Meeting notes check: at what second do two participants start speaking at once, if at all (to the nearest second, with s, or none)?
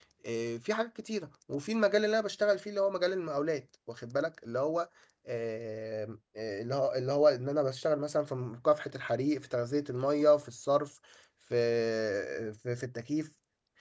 none